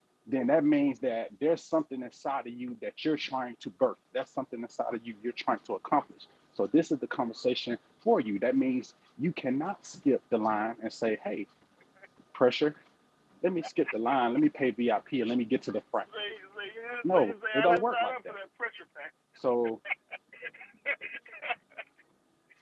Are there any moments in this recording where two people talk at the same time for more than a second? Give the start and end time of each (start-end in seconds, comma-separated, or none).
17.0-18.3